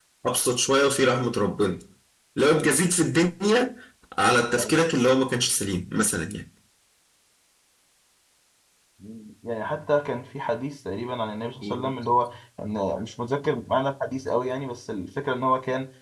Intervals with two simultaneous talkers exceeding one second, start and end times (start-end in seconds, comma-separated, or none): none